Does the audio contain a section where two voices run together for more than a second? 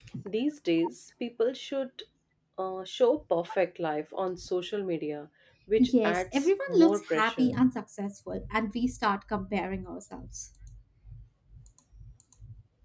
Yes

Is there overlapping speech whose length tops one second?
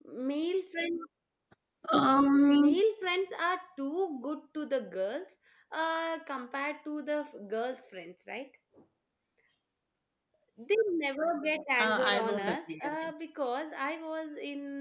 Yes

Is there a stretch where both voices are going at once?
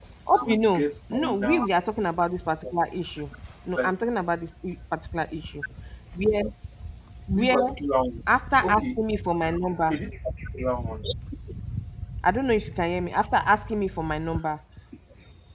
Yes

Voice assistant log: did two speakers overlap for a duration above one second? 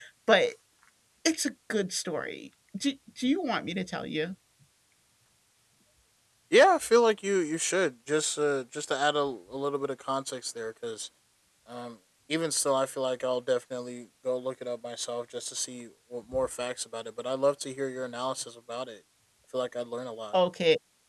No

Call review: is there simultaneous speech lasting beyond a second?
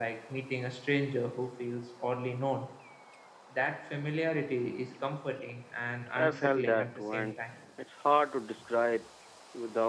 Yes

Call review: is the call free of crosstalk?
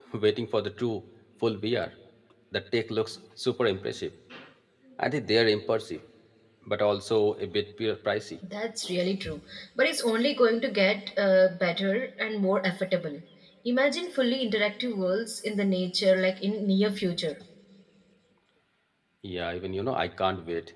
Yes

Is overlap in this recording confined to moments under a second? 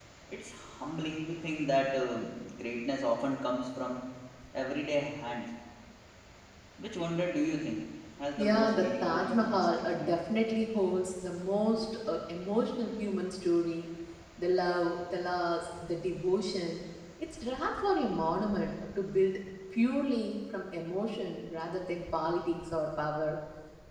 No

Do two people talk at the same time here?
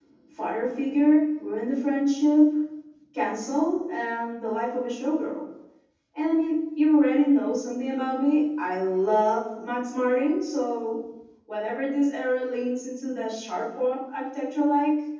No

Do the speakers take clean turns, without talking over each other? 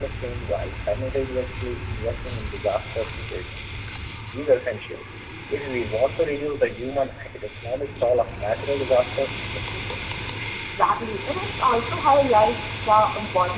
Yes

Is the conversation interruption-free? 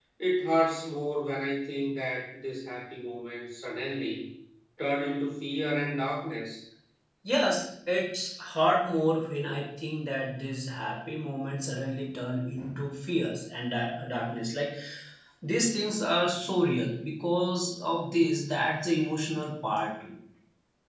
Yes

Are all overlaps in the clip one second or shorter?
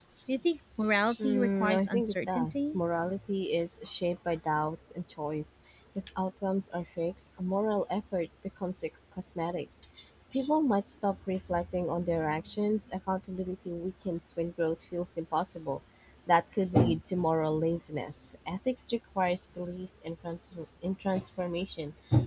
No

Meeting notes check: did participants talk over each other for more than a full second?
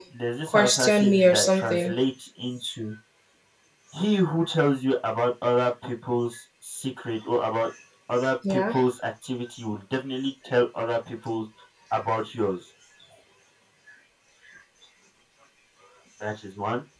Yes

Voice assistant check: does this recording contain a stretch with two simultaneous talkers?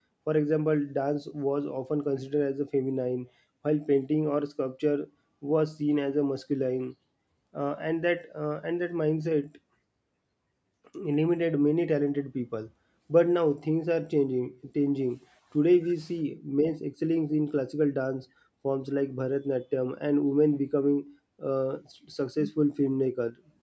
No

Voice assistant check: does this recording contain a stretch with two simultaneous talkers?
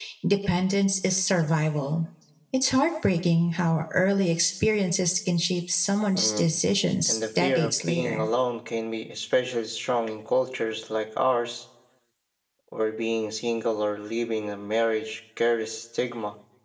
Yes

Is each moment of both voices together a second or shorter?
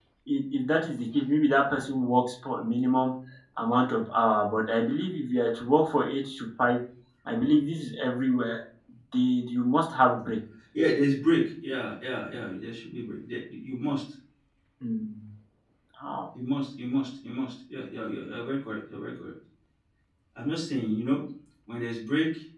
Yes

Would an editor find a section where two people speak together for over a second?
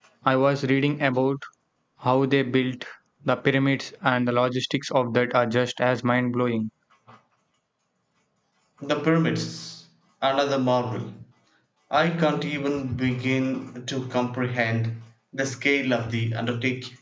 No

